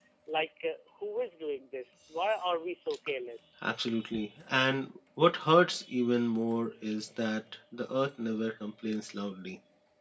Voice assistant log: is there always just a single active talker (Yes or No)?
Yes